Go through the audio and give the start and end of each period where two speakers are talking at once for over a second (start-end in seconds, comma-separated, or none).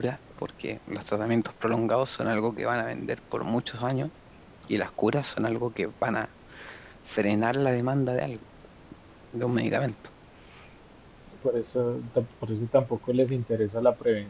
none